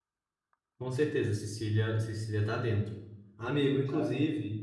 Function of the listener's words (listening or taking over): listening